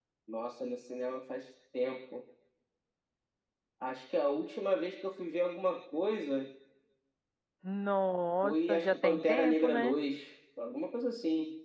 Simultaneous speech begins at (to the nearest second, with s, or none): 8 s